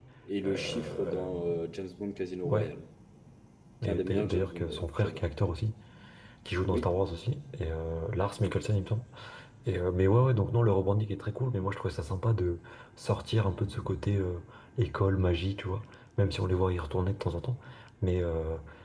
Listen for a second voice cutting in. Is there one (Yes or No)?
Yes